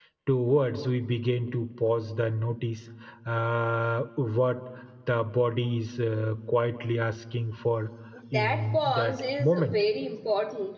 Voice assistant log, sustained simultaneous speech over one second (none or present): present